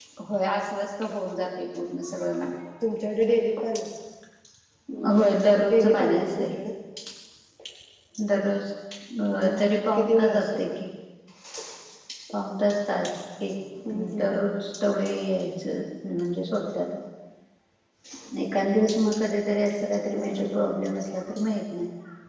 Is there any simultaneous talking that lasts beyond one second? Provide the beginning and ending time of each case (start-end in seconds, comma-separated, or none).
5.1-6.5, 9.4-10.6